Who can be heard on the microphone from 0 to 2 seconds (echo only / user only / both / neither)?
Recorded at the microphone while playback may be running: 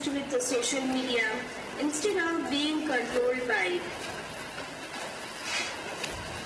echo only